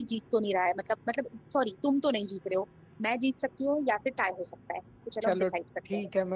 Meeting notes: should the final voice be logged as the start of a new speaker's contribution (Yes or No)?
Yes